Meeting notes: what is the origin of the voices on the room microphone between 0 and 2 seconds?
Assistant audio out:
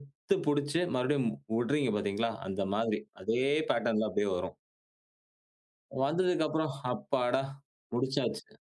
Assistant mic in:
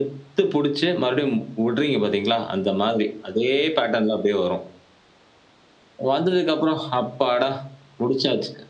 echo only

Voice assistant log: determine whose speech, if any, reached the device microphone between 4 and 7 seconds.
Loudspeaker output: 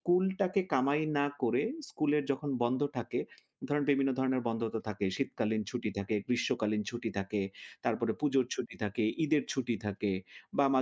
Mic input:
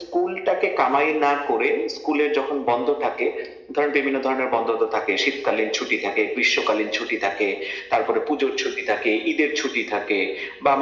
echo only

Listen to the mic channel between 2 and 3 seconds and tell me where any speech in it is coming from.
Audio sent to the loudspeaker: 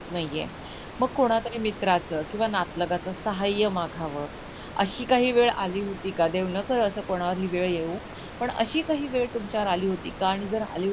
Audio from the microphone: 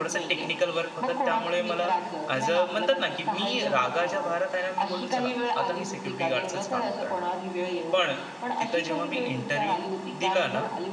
both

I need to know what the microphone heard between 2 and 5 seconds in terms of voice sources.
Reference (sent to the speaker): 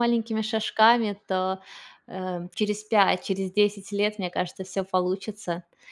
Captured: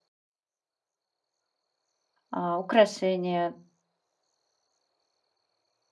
user only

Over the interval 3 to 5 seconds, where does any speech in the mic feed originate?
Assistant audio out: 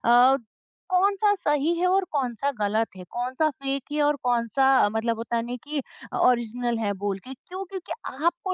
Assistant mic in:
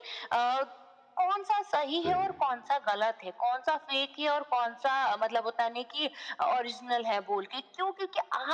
echo only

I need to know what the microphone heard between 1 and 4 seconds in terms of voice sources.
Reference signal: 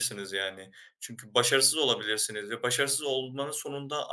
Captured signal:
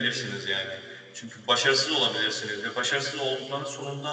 echo only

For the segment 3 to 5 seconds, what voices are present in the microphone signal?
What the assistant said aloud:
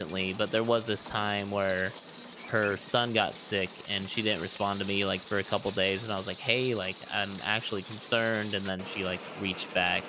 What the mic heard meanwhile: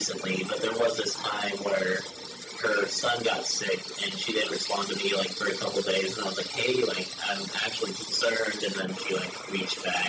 echo only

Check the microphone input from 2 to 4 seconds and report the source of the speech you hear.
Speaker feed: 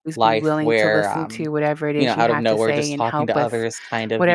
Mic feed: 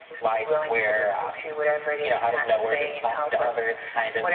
echo only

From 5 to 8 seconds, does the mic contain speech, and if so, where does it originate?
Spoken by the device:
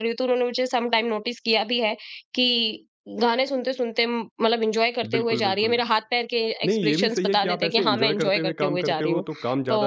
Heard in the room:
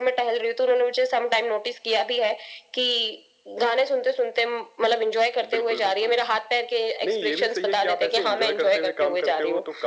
echo only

